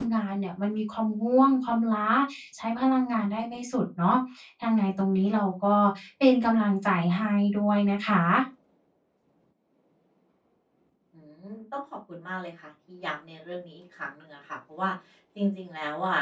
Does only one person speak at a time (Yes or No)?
Yes